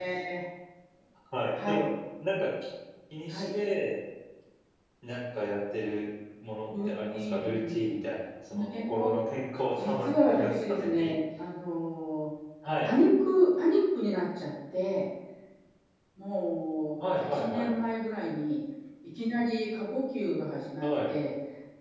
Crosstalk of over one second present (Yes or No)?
Yes